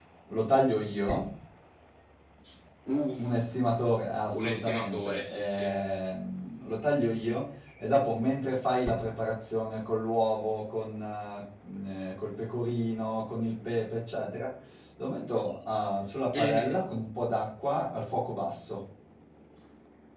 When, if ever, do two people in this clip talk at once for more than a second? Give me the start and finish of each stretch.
4.3-5.7

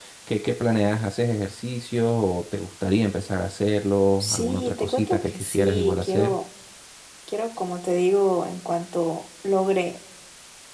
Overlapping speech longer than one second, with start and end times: 4.2-6.4

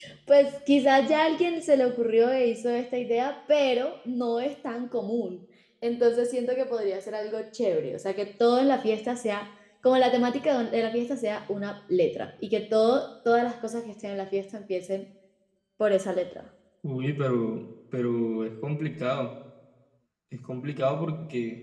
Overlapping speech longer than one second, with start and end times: none

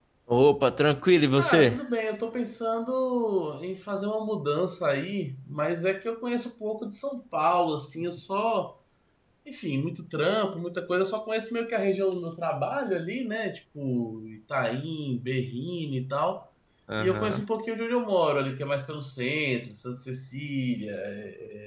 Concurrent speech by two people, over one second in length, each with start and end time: none

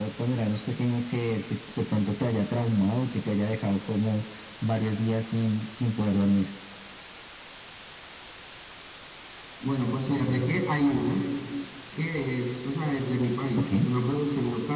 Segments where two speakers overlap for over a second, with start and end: none

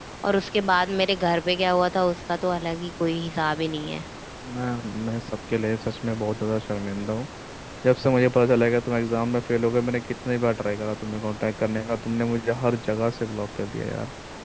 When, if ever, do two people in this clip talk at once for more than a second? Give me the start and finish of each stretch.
none

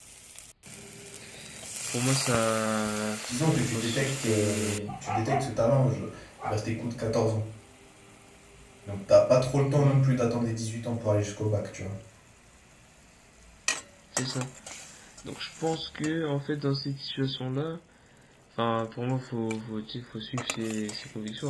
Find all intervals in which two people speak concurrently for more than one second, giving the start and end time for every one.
3.3-4.9

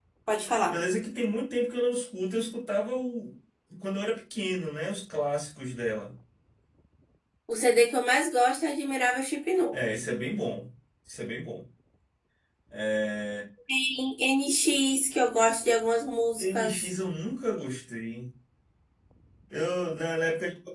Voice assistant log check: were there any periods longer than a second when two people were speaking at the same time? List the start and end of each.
none

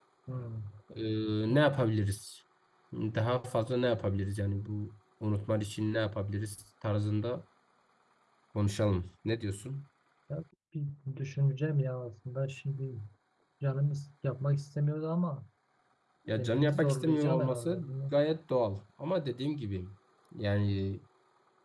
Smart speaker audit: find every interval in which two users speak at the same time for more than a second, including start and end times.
16.4-18.2

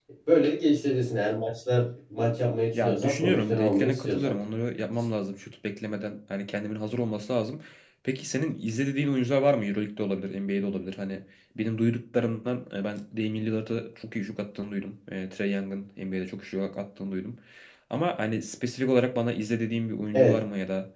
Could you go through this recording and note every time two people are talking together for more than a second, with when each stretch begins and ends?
2.7-4.3

